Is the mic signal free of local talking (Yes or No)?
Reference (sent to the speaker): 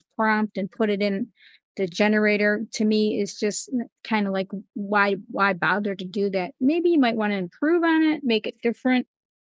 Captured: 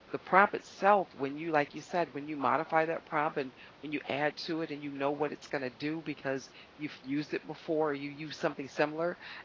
No